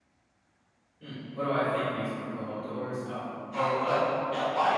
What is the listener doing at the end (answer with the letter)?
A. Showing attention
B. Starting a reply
B